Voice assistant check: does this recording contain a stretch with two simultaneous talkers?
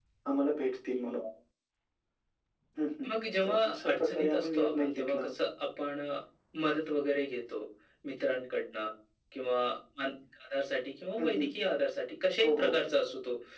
Yes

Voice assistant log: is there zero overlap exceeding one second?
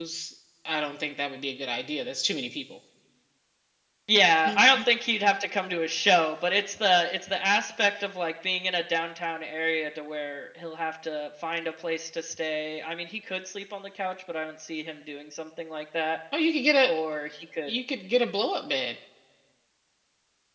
Yes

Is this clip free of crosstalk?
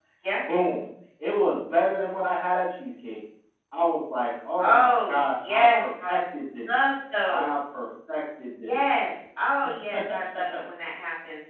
No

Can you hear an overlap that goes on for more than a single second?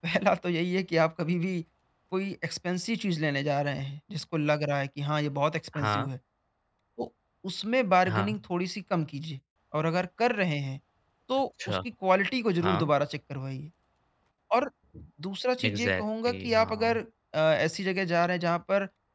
Yes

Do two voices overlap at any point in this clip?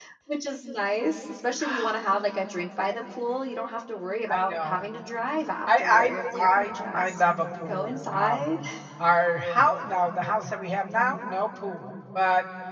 Yes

